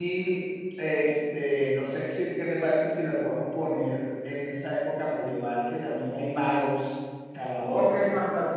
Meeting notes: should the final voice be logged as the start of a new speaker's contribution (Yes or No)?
Yes